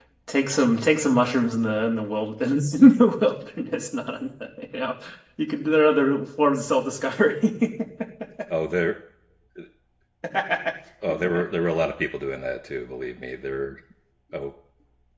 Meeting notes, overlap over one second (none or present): none